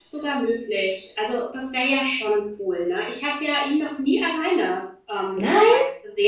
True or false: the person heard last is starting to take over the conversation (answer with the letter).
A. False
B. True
A